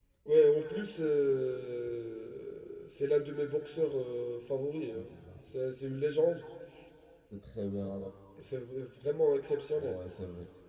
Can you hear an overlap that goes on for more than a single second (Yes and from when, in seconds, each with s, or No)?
No